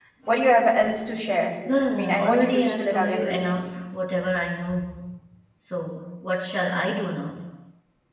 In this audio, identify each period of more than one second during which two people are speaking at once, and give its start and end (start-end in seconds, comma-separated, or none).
1.9-3.6